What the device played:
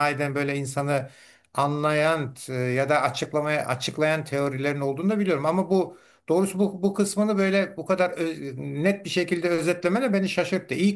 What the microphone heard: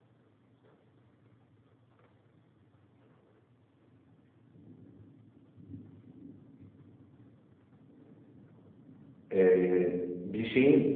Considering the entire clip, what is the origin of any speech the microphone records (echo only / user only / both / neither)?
user only